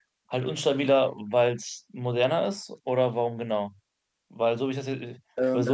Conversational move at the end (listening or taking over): listening